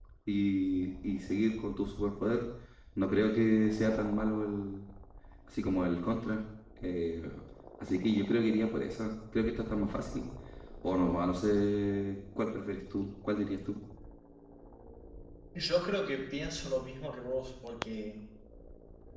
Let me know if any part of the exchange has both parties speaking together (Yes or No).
No